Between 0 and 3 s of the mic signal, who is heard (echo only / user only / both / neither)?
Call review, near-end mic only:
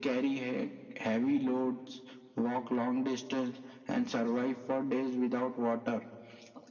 echo only